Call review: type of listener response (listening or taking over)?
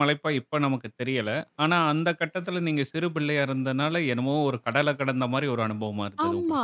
taking over